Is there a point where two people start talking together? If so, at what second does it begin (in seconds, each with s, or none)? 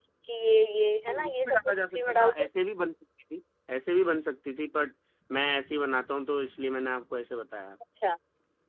1.1 s